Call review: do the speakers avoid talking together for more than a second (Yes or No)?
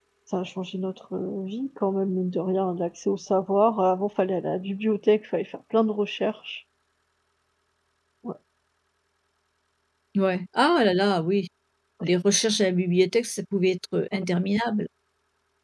Yes